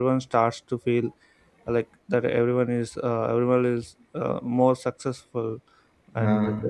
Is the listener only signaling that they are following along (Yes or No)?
Yes